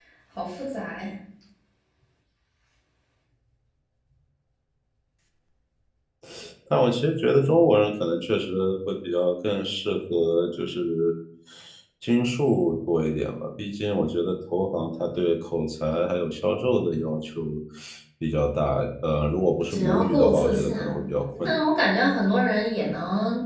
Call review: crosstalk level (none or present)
present